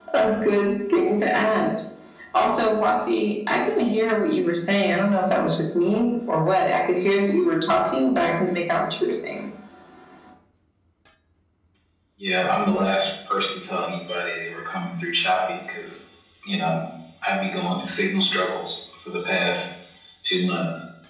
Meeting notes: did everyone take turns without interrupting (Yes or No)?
Yes